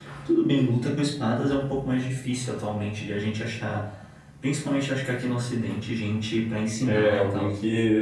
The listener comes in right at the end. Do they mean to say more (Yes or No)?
Yes